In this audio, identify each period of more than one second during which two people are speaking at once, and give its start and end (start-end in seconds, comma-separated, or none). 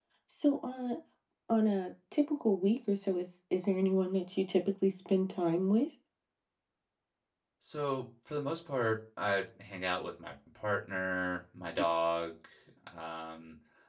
none